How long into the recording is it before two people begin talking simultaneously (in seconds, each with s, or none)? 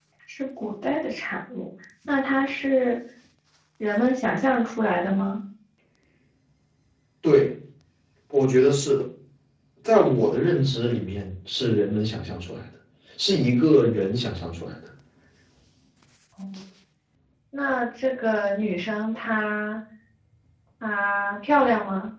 none